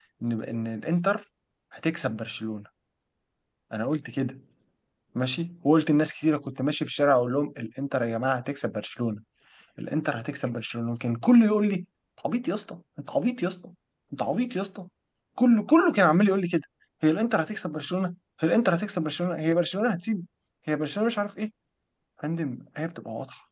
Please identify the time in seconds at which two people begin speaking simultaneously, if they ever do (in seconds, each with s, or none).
none